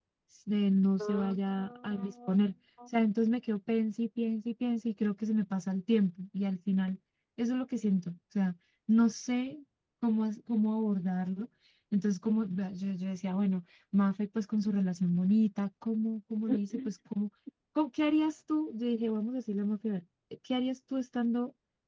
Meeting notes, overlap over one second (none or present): present